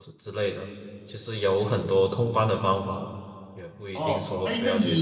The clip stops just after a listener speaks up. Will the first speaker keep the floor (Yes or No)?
No